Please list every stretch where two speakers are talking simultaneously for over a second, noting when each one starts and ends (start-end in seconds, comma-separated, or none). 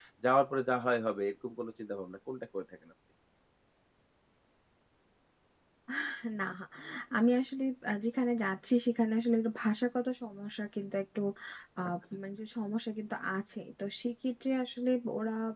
none